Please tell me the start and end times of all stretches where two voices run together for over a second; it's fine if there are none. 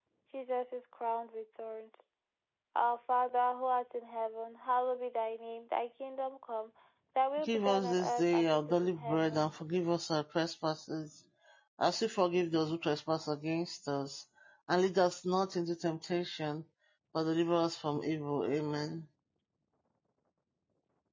7.5-9.4

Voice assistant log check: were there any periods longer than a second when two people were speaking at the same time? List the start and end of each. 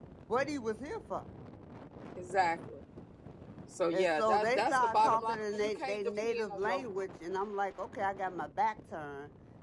3.9-6.8

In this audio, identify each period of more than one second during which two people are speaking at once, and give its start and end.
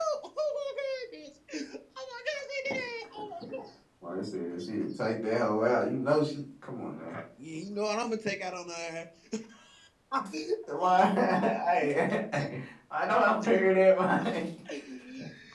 none

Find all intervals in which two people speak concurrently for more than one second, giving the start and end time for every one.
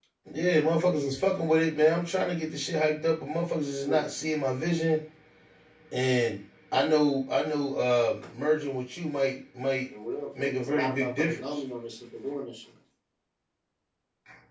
10.4-11.6

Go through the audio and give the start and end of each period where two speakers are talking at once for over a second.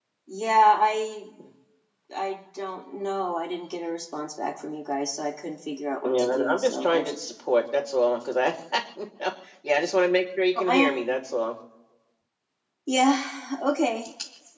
6.0-7.2

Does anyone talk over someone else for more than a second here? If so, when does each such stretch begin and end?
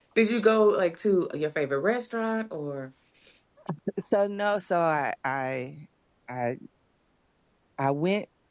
none

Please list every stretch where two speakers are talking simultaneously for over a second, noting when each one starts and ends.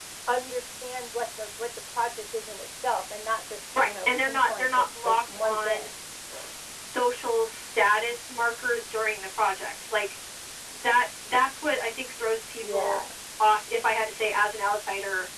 3.8-5.9

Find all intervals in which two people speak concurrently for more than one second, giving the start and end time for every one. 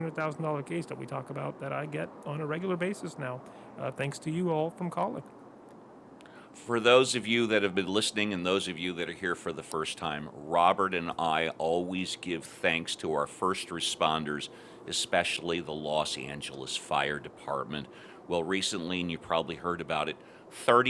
none

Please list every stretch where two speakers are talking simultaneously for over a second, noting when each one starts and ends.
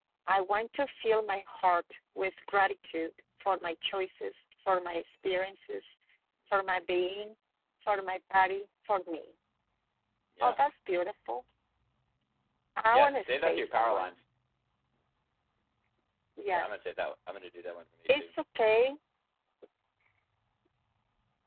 12.9-14.1

